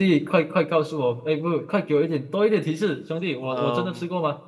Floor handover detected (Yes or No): Yes